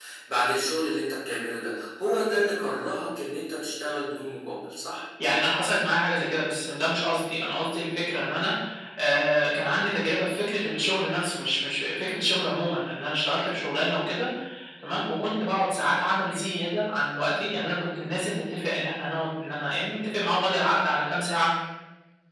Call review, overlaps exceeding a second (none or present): none